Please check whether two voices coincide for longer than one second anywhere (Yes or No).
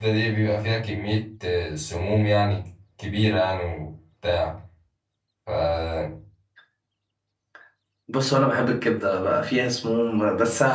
No